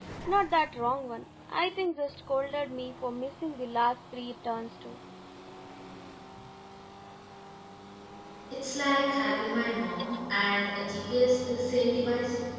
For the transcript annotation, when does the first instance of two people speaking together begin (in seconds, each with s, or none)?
none